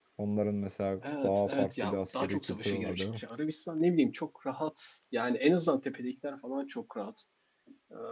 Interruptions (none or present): present